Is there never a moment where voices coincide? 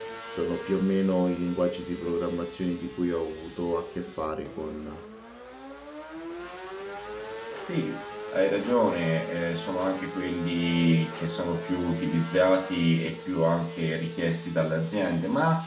Yes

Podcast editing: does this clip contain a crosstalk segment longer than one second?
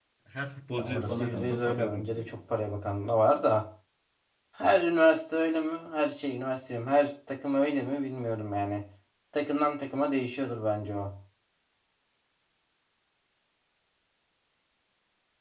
Yes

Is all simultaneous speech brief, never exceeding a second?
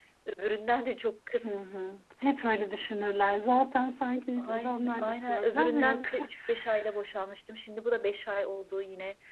No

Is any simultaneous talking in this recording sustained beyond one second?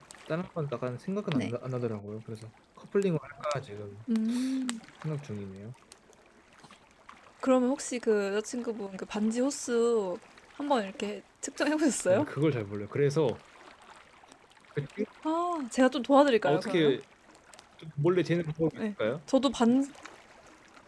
No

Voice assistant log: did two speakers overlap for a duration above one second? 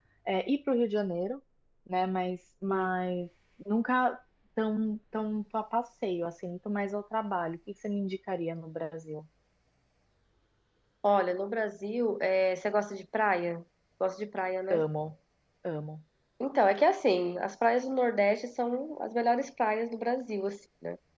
No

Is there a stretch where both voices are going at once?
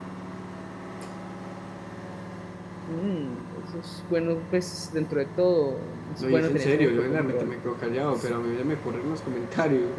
Yes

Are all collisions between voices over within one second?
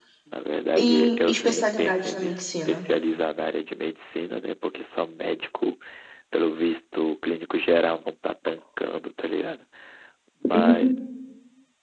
No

